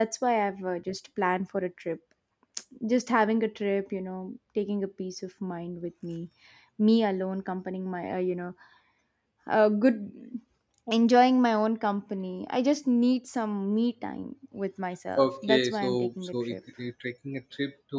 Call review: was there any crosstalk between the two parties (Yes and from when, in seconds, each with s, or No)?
Yes, from 15.2 s